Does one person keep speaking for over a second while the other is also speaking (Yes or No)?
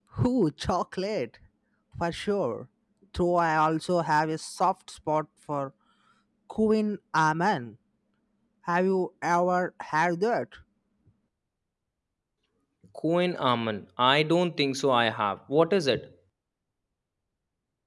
No